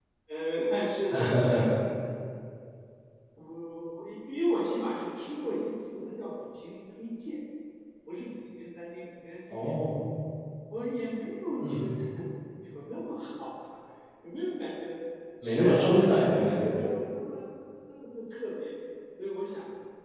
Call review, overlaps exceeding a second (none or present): present